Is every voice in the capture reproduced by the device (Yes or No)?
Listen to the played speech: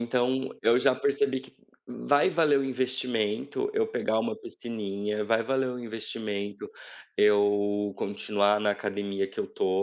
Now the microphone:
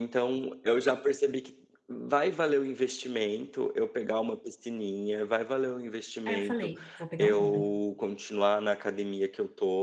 No